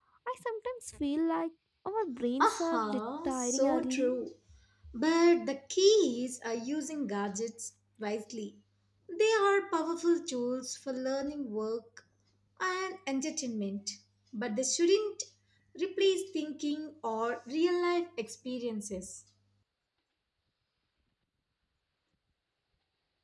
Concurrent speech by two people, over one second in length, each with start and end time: 2.4-4.1

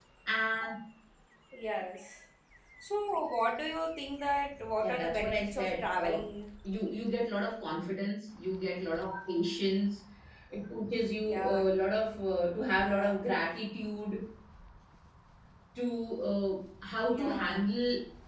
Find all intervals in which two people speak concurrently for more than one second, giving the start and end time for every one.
4.8-6.2

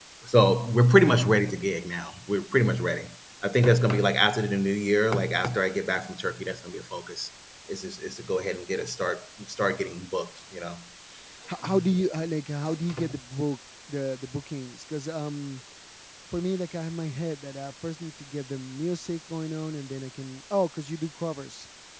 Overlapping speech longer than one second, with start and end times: none

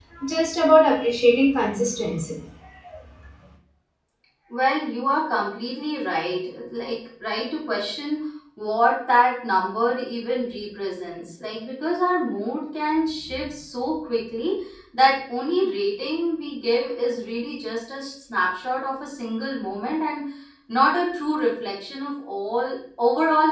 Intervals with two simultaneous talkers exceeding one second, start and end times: none

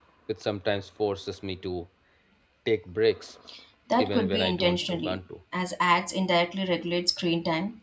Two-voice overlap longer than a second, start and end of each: 4.0-5.2

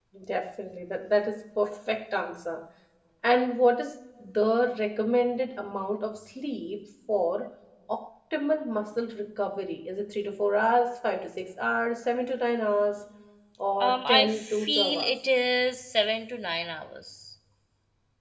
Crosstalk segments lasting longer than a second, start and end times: 13.8-15.1

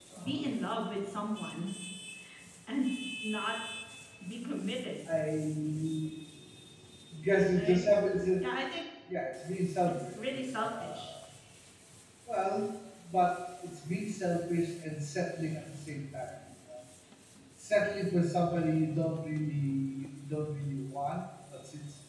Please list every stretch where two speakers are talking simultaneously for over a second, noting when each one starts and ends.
9.9-11.1

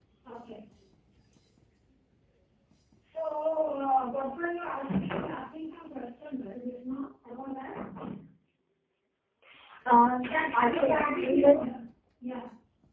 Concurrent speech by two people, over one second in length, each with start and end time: 10.2-11.6

